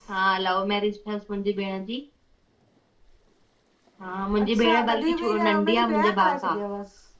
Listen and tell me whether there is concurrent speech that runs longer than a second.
Yes, from 4.4 s

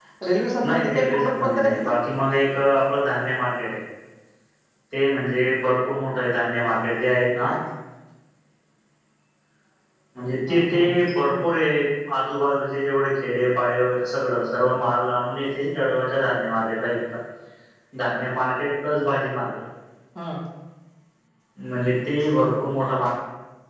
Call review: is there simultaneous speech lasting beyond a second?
Yes, from 0.6 s

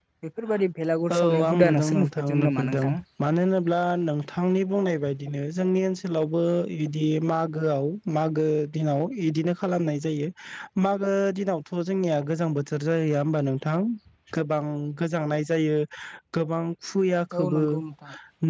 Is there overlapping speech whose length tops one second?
Yes, from 1.1 s

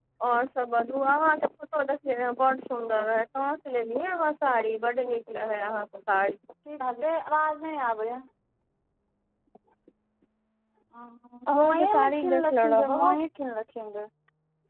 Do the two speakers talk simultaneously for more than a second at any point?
Yes, from 11.6 s

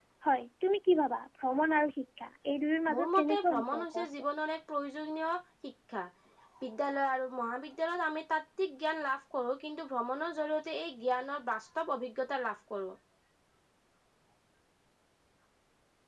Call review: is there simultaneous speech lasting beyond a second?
Yes, from 2.9 s

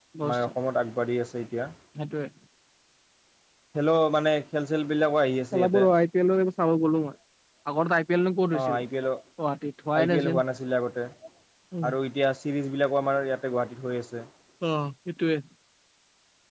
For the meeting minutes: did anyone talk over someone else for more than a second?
No

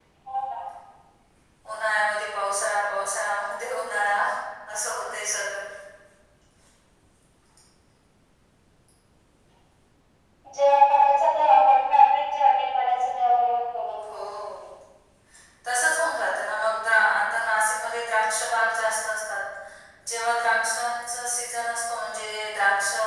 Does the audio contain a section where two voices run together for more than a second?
No

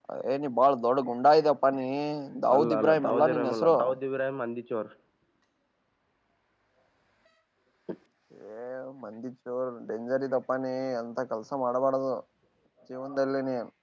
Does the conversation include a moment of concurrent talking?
Yes, from 2.5 s

